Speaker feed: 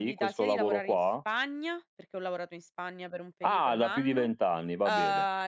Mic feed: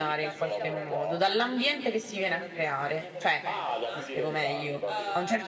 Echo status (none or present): present